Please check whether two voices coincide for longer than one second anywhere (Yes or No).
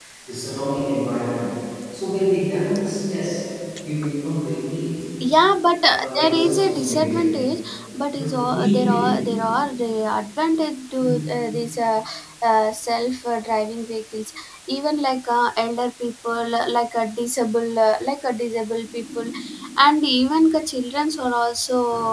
Yes